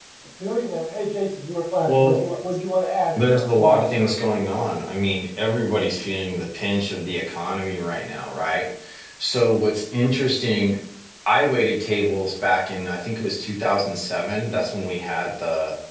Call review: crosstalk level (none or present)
present